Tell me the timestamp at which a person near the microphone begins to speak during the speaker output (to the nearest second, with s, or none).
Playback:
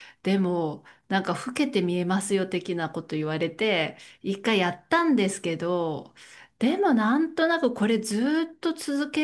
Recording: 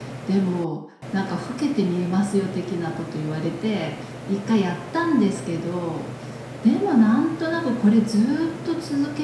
none